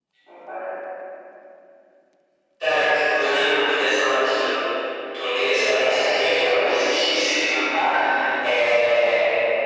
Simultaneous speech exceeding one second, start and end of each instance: 5.8-7.8

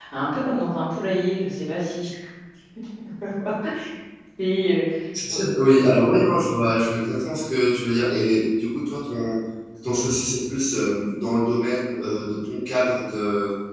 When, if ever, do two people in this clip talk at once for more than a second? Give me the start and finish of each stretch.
none

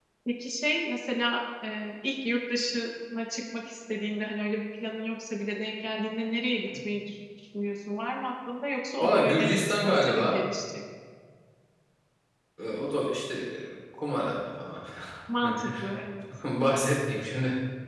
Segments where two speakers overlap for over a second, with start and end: 9.0-10.4

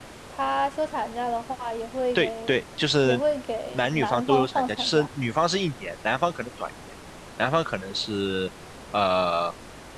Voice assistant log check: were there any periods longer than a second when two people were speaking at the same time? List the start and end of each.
3.7-5.1

